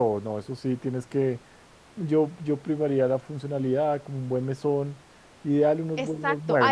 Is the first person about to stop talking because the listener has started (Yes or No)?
Yes